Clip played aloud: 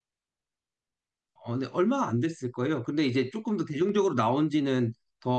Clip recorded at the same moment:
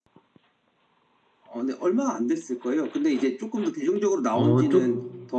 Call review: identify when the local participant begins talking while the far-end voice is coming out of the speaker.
4.3 s

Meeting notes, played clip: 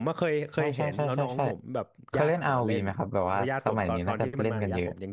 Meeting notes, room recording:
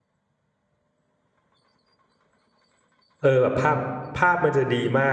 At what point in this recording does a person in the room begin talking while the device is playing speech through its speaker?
3.2 s

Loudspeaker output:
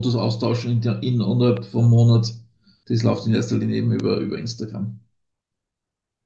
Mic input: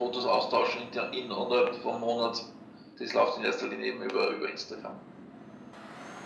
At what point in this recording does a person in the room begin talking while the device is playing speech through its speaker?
none

